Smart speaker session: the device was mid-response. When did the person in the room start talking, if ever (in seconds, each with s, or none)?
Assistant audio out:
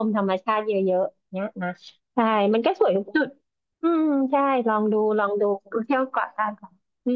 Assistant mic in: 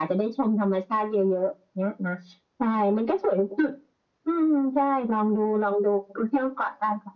none